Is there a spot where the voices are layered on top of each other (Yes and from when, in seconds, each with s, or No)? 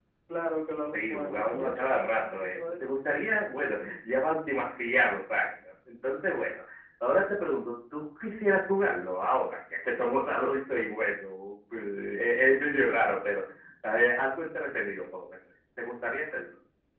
Yes, from 0.9 s